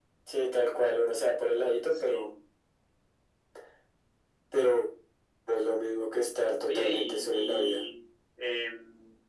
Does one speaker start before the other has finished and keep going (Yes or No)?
Yes